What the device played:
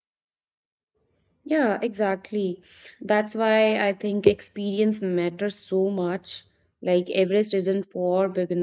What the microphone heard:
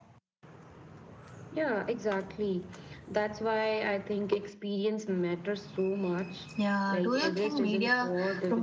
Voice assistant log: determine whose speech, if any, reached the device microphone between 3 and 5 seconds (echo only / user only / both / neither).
echo only